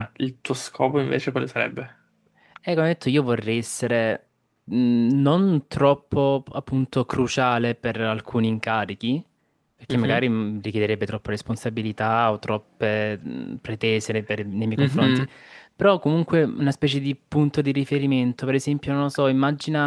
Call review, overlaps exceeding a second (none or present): none